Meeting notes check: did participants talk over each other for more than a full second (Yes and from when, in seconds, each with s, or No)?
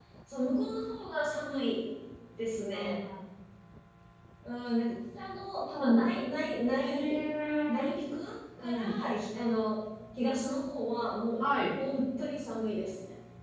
No